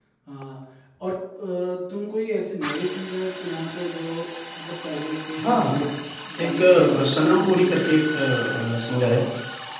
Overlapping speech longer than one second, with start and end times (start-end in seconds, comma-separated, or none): 6.4-8.1